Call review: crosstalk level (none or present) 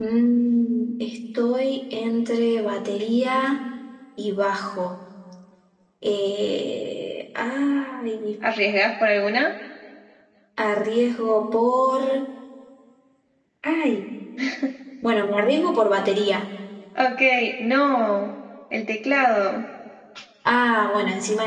none